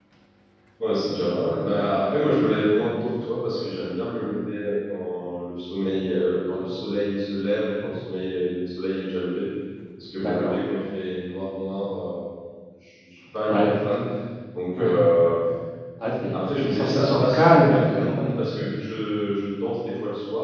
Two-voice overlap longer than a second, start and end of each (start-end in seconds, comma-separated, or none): 16.3-18.4